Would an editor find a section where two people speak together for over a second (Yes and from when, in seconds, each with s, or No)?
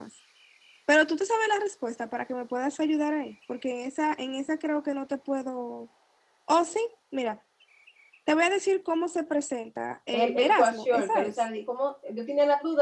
Yes, from 10.1 s